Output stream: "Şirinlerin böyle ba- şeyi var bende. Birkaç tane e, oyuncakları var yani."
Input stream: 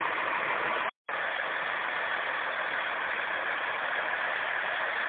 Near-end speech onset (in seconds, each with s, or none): none